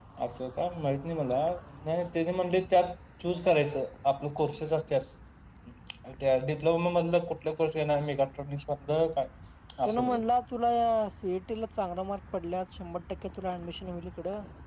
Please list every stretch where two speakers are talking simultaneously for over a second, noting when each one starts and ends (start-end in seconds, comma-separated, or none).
none